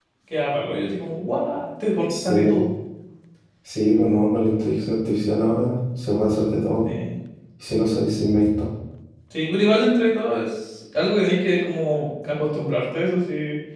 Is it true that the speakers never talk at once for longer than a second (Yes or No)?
Yes